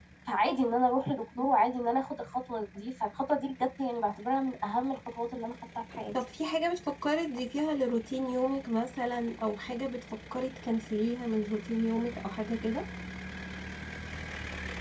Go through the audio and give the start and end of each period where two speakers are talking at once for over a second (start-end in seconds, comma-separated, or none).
none